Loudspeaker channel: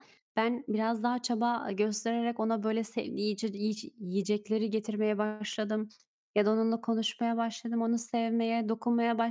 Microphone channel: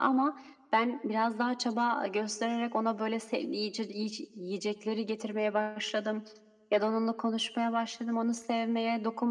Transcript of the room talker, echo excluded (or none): none